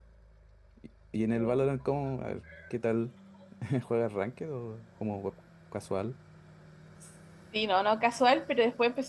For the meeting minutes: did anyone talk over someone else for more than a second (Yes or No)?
No